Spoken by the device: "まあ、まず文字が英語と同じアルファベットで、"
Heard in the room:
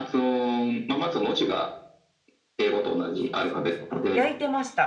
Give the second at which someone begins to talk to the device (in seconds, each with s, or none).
3.1 s